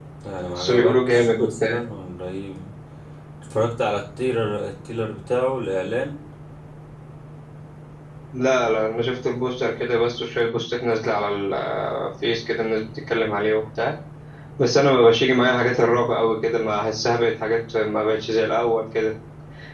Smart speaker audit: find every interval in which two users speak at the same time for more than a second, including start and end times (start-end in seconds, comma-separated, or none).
0.6-1.8